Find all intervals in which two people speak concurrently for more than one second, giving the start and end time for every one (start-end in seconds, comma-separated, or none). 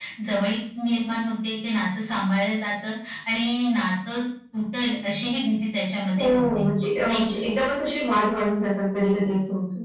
none